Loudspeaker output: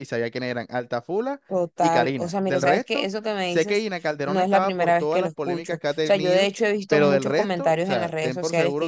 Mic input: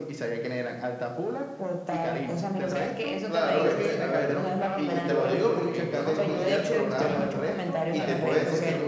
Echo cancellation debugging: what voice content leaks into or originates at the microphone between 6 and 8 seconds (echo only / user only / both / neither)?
both